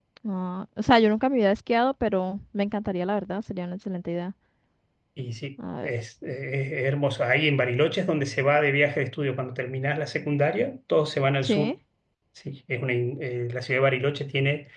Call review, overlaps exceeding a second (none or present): none